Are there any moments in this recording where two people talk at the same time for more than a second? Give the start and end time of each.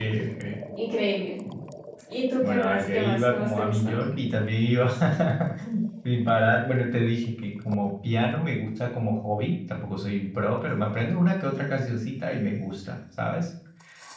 2.4-4.0

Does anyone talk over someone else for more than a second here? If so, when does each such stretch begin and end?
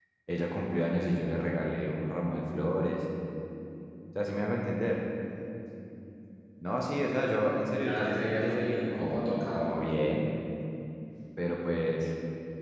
7.8-9.7

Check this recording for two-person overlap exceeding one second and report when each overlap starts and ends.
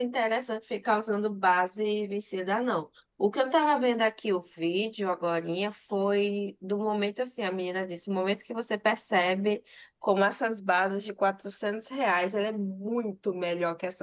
none

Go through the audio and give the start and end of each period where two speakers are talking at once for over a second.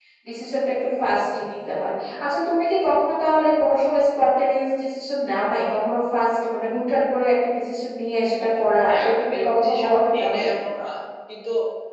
8.9-10.5

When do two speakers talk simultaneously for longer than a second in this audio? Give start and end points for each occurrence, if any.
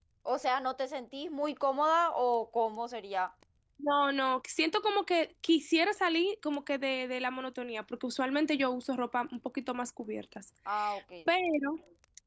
none

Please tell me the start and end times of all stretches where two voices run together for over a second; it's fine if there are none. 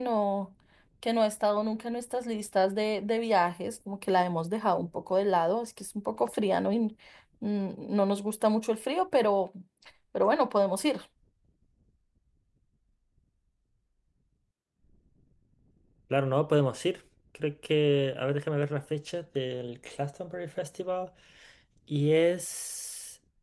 none

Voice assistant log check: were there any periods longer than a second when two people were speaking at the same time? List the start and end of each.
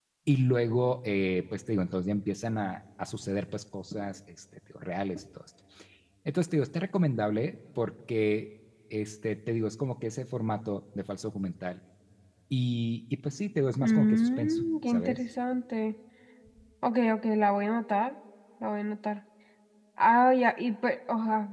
13.8-15.2

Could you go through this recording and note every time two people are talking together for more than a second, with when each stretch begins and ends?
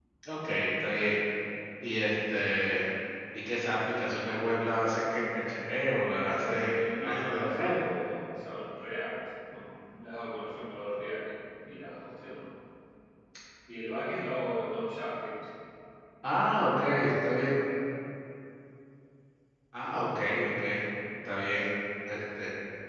6.3-7.7

